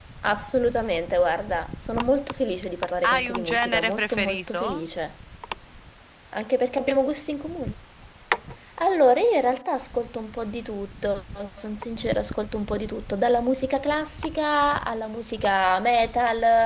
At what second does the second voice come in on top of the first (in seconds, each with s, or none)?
3.0 s